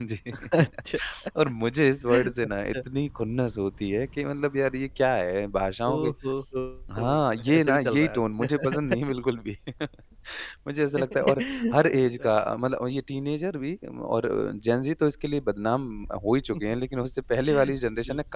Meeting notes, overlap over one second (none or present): present